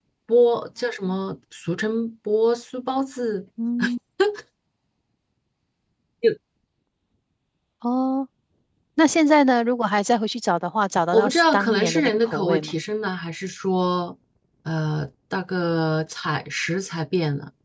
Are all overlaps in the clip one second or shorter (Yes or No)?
No